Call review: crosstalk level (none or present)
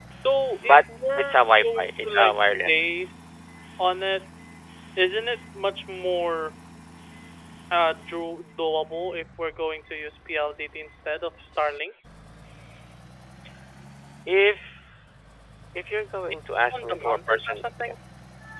present